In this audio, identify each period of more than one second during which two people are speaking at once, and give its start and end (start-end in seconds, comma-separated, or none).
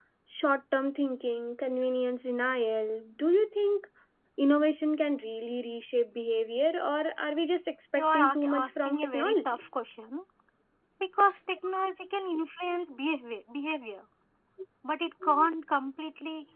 8.0-9.6